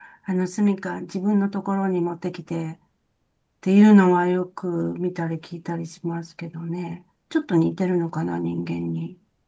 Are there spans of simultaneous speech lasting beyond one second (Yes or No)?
No